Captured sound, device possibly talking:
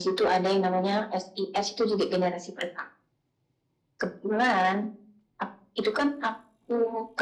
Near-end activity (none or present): none